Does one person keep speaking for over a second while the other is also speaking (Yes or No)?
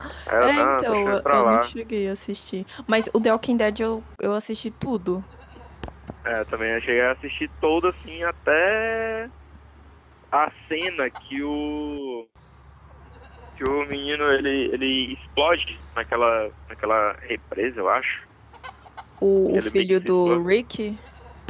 Yes